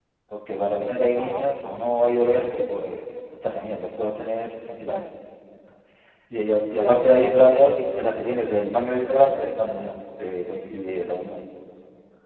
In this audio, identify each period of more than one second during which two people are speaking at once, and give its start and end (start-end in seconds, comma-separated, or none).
6.8-8.1